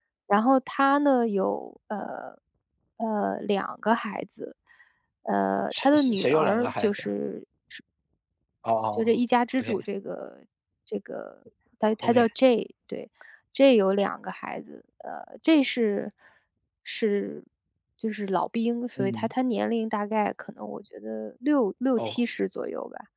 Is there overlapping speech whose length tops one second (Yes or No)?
Yes